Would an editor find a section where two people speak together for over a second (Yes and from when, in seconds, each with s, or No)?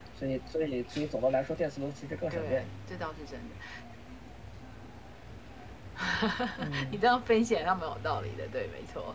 No